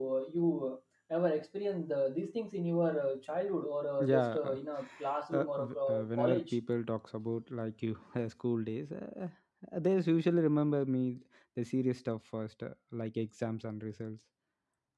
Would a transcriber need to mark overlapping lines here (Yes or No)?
Yes